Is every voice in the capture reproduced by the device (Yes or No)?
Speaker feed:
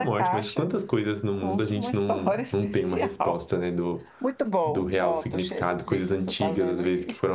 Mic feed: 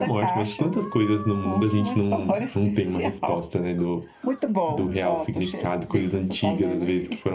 Yes